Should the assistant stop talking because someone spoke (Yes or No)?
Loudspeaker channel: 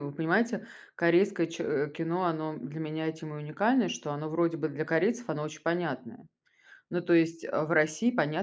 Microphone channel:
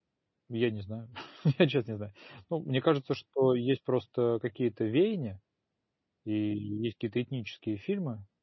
Yes